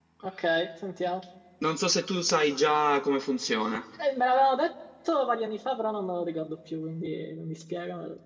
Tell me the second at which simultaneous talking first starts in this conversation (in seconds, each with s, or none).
none